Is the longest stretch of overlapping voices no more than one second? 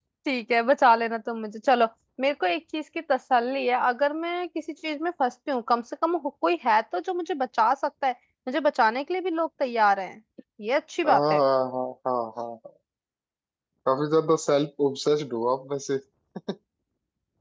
Yes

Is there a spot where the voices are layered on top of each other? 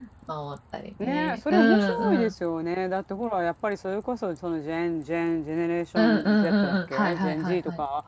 Yes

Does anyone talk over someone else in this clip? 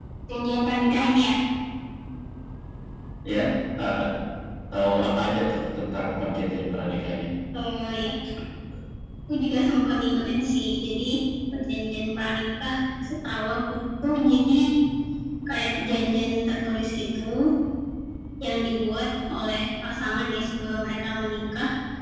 No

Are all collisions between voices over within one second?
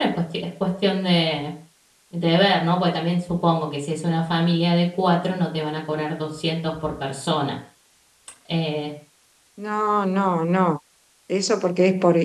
Yes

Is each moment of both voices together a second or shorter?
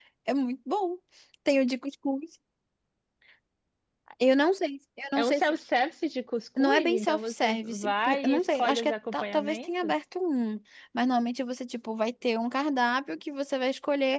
No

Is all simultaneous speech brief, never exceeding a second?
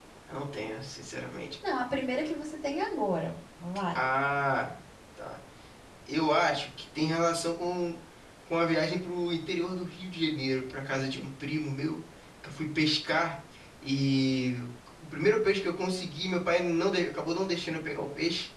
Yes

